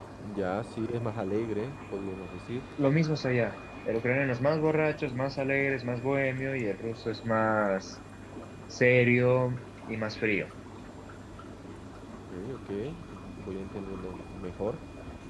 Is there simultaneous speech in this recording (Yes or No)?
No